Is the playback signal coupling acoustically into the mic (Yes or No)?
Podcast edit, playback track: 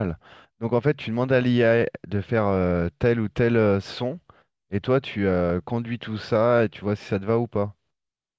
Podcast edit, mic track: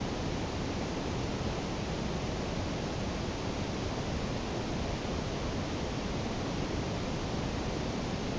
No